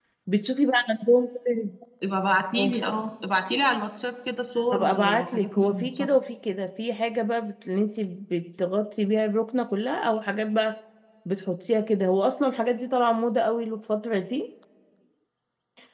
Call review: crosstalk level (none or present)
present